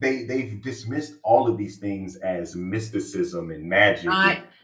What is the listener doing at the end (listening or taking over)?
listening